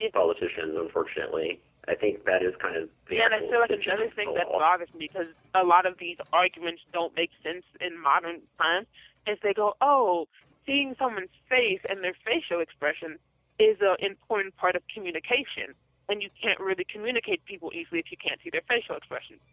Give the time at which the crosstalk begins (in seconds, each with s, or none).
3.1 s